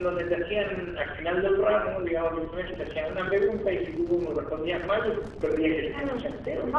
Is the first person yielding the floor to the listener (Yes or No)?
Yes